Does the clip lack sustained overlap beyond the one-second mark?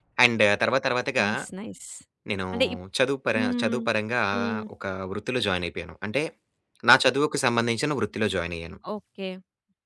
Yes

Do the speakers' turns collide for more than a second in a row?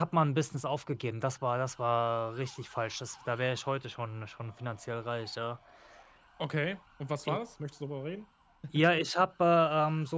No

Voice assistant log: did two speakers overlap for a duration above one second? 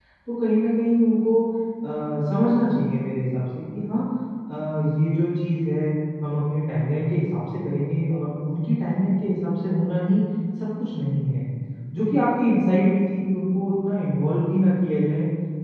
No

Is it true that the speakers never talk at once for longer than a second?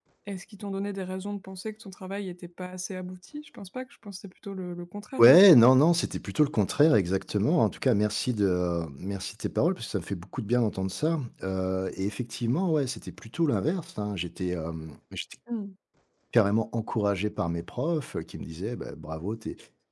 Yes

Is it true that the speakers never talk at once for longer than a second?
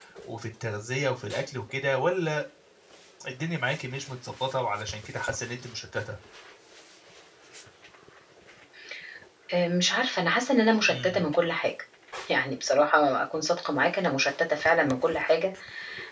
Yes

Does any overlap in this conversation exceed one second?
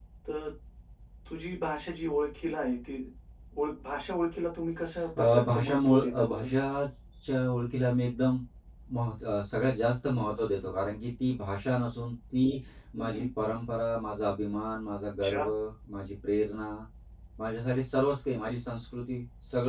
Yes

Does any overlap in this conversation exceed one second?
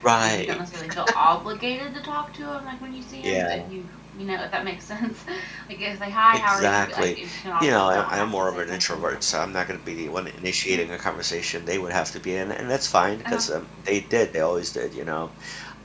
Yes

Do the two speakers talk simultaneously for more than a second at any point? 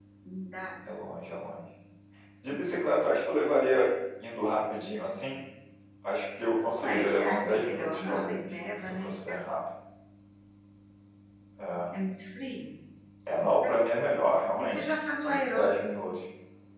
Yes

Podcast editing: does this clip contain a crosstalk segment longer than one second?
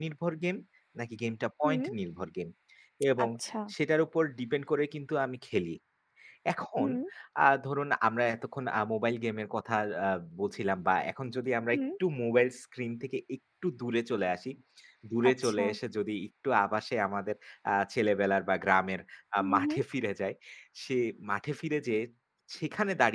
No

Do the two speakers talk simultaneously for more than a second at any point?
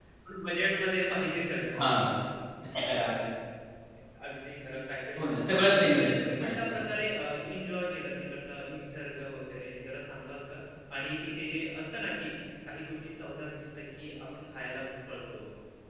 Yes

